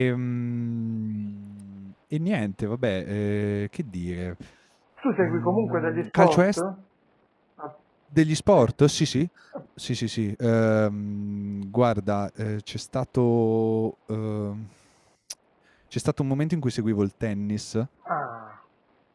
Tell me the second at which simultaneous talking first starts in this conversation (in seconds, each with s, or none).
5.2 s